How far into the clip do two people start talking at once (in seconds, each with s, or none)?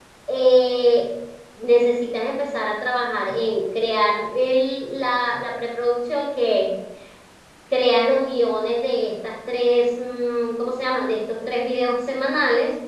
none